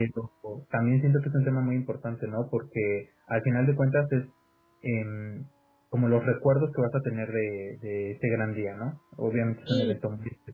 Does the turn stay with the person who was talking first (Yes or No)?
Yes